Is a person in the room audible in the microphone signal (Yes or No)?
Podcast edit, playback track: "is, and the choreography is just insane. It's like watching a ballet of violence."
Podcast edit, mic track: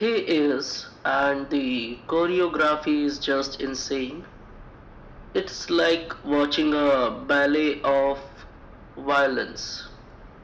No